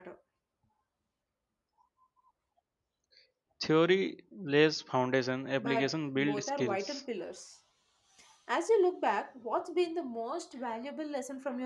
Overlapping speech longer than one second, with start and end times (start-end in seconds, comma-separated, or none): 5.6-7.0